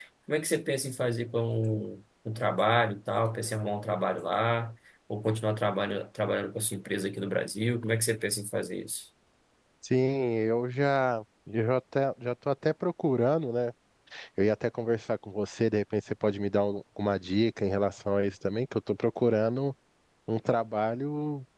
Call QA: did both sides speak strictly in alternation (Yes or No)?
Yes